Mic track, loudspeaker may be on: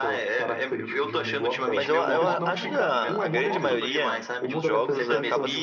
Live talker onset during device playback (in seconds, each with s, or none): 1.7 s